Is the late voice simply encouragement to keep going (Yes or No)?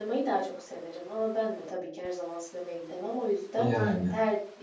Yes